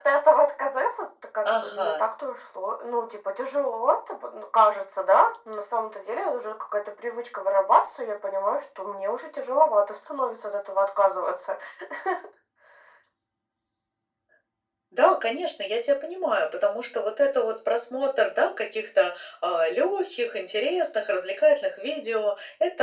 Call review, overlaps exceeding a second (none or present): none